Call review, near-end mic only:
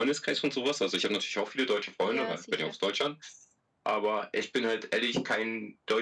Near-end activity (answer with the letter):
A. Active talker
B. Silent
A